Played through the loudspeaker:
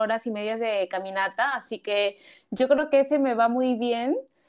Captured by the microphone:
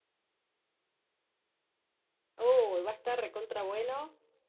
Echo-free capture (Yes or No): Yes